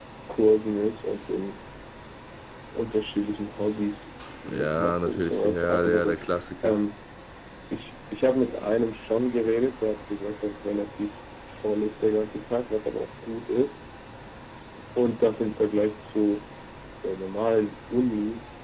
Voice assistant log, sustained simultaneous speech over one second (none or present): present